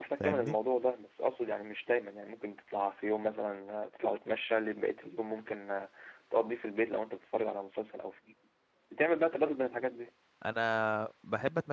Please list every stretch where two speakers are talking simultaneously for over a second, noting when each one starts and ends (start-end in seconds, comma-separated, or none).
none